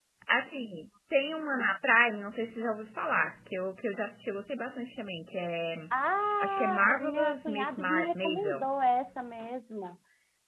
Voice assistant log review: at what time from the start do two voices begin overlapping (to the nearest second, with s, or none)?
6 s